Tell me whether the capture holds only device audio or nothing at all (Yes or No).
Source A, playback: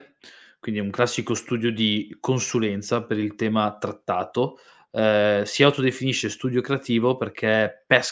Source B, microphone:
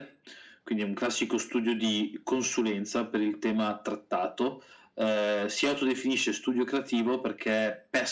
Yes